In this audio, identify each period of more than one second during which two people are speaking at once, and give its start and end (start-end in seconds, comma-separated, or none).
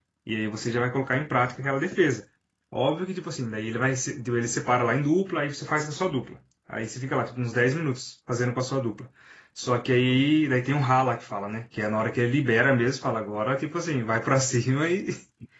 none